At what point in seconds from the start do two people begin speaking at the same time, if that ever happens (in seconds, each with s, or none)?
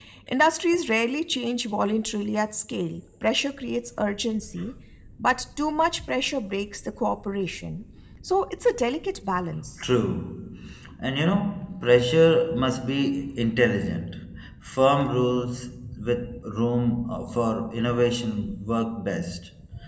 none